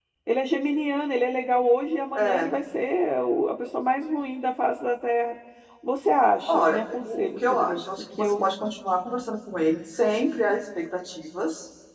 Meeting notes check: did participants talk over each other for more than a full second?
Yes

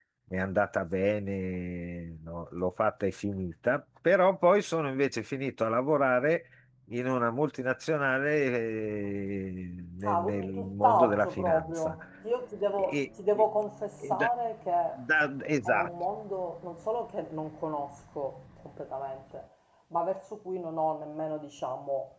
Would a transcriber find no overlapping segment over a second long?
No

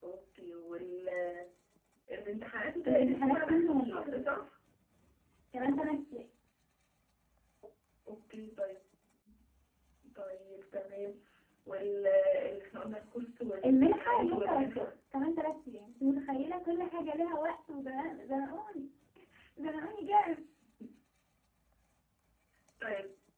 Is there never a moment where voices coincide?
No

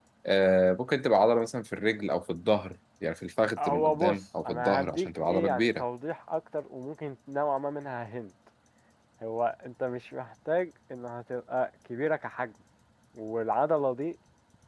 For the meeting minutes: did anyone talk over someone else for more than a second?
Yes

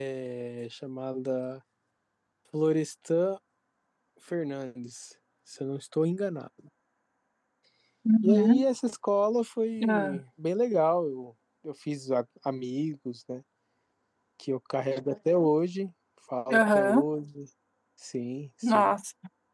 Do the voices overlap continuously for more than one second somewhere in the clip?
No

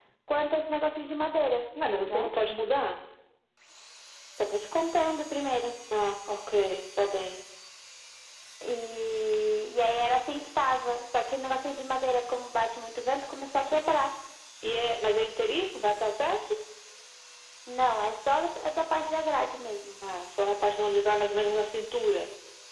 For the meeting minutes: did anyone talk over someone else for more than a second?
No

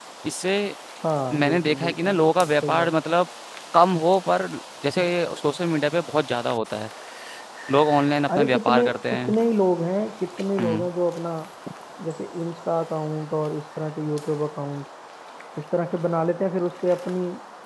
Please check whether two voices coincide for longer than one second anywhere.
Yes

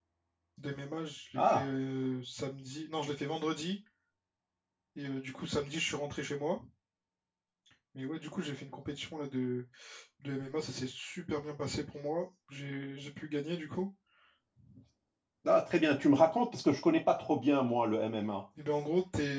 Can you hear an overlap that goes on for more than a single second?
No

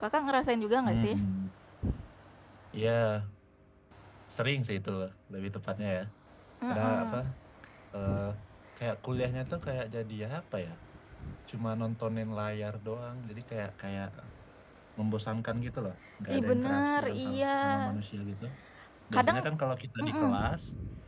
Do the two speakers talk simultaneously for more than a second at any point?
Yes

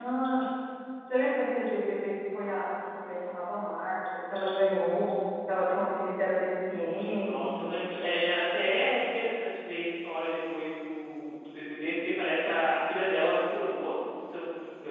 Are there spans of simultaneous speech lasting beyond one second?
No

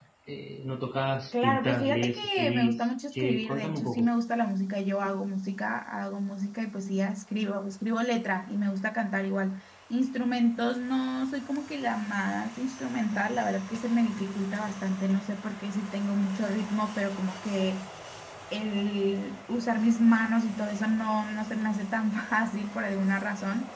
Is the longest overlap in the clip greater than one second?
Yes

